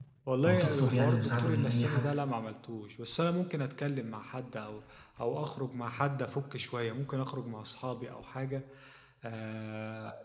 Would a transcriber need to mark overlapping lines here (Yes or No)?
Yes